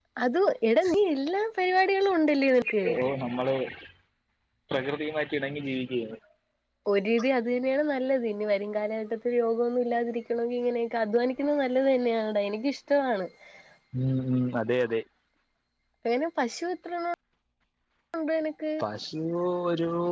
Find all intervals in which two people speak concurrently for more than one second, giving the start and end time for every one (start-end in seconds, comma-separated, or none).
none